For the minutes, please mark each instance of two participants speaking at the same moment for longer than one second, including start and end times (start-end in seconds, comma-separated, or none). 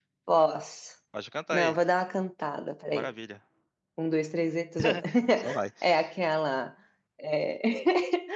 none